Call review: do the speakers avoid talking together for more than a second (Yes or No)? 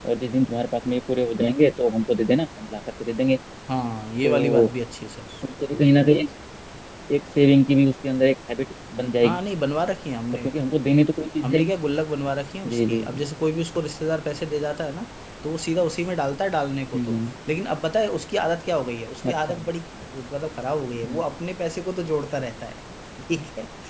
Yes